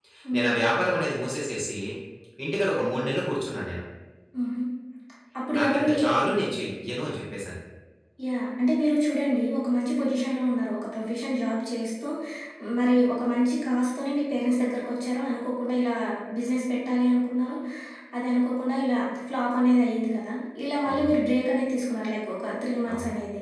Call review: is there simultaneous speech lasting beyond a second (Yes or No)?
No